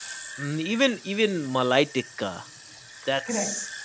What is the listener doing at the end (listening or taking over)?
listening